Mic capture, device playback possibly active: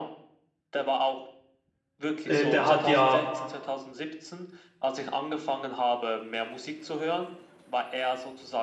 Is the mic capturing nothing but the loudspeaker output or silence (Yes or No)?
No